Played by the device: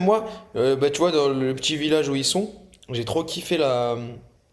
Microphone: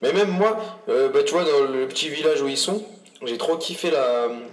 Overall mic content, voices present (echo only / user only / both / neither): echo only